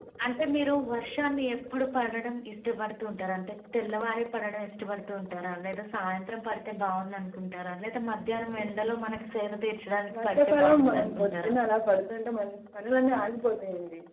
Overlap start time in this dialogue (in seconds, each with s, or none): 10.1 s